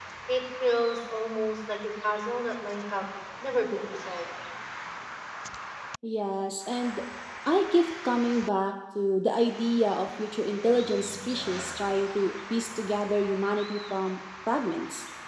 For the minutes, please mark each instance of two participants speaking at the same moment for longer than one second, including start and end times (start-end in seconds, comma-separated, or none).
none